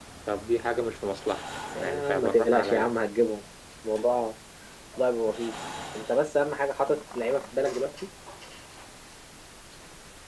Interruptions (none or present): present